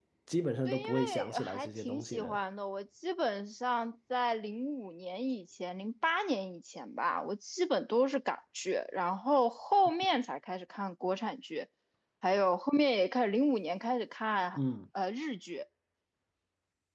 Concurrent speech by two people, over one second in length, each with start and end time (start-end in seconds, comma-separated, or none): 0.7-2.4